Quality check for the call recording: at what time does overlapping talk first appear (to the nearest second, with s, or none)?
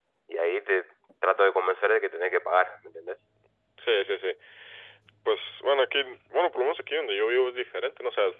none